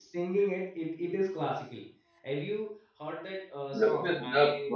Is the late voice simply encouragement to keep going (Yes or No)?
No